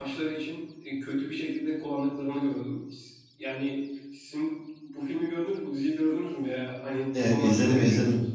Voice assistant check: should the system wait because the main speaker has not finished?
No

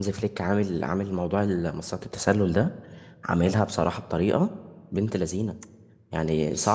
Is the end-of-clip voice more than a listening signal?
No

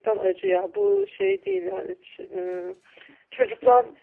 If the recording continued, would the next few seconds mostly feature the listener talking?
No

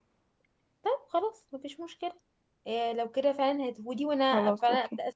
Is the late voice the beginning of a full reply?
No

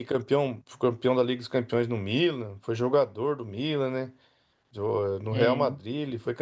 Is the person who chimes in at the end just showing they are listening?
Yes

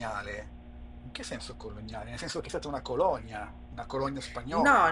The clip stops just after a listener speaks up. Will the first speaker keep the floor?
No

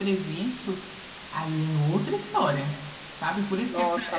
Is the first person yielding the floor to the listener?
No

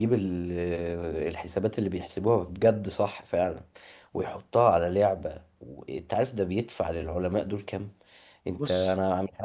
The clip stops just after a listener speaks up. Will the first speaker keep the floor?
Yes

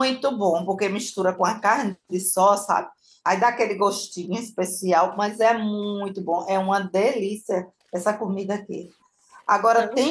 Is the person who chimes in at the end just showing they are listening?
Yes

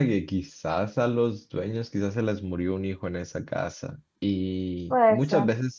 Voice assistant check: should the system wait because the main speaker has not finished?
Yes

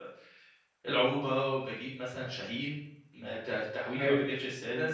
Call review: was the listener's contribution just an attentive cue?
Yes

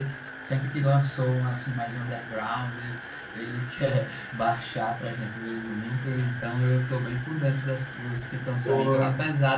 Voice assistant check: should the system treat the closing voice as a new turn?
No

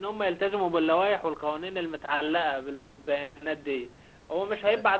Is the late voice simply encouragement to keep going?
Yes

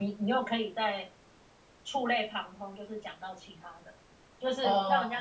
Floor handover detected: No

